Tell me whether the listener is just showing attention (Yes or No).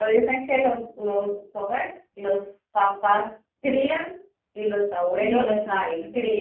No